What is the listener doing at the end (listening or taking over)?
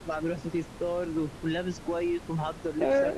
listening